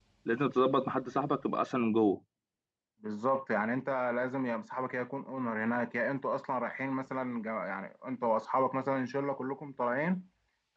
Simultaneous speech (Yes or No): No